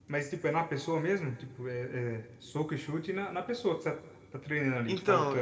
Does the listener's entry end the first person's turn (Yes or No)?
Yes